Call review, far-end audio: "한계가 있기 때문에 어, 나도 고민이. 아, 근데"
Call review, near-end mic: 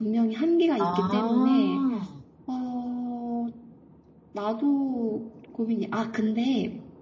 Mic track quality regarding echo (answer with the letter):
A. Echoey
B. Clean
A